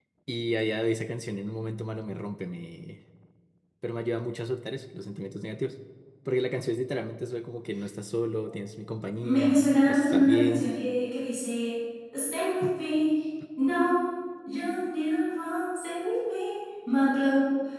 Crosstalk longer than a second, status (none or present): present